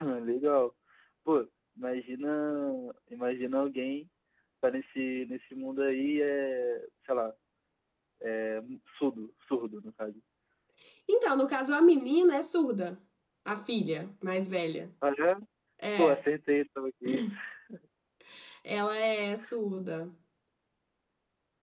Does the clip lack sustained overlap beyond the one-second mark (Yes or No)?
Yes